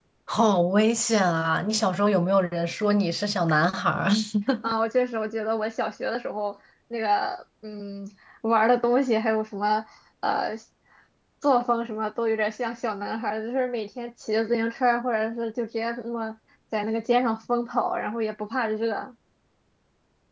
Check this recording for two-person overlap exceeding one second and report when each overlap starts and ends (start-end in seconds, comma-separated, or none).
none